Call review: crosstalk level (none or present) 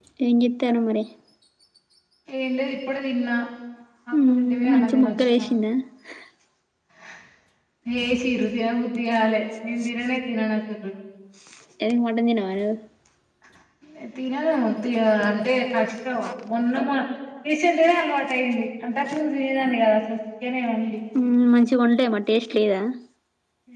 present